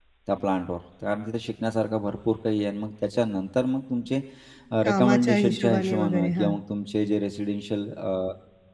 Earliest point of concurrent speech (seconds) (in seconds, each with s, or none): 4.8 s